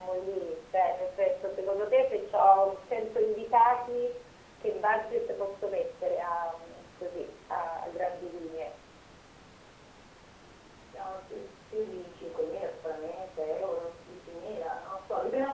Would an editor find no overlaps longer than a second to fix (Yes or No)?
Yes